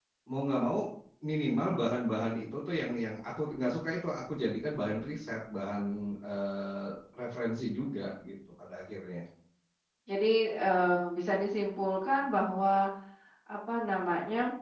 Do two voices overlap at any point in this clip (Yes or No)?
No